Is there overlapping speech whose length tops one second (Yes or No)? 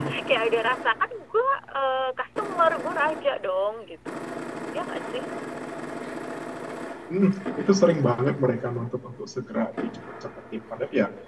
No